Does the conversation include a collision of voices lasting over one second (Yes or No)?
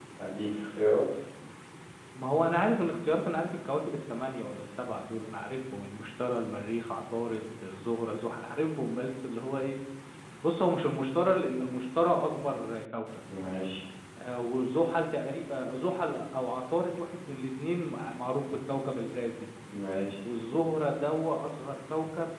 No